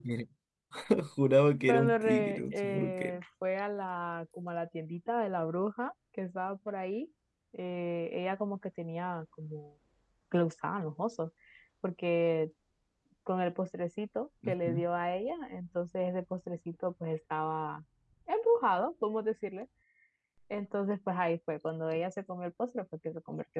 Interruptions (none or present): present